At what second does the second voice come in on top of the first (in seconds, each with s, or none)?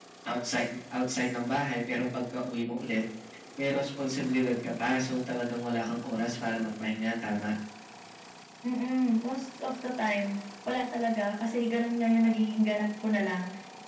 none